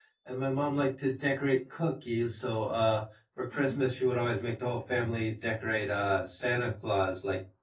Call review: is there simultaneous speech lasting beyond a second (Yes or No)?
No